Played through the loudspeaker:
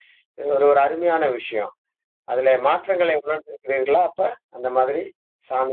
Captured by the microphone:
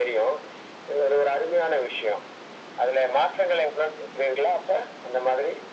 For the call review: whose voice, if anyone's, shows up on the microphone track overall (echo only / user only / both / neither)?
echo only